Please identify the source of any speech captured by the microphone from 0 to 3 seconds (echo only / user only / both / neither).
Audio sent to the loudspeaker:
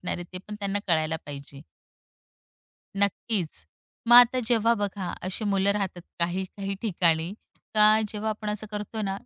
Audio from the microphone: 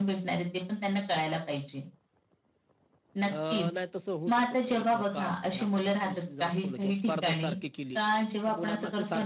echo only